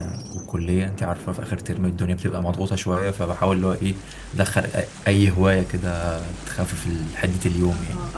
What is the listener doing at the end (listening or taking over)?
taking over